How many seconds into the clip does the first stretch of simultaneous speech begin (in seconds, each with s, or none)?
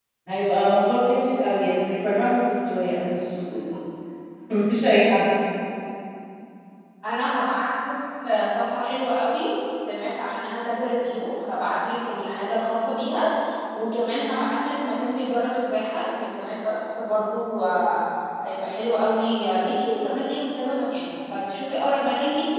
none